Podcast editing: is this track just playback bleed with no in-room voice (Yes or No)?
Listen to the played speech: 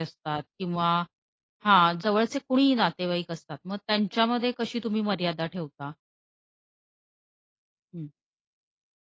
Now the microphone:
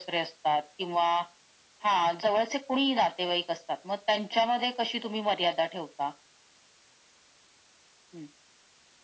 Yes